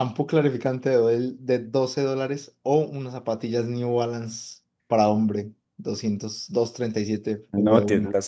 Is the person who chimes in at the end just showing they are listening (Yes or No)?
No